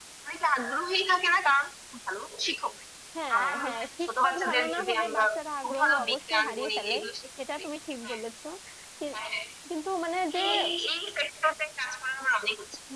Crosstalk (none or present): present